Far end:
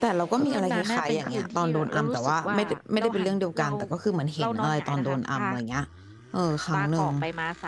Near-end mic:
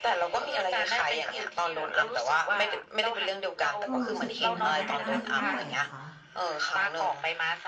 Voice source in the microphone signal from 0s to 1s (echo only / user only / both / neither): echo only